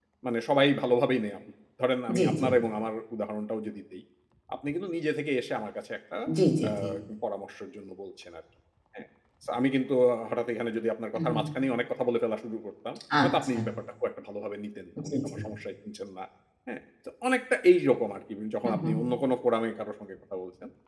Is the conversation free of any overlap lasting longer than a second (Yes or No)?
Yes